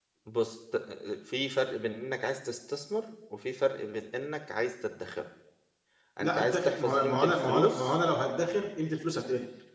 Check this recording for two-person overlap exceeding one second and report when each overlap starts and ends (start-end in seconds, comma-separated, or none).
6.2-8.0